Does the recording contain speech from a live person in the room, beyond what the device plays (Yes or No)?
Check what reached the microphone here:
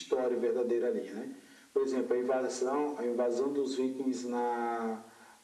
No